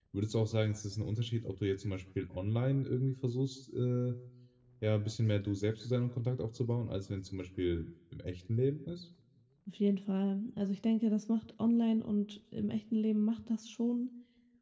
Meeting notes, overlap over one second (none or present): none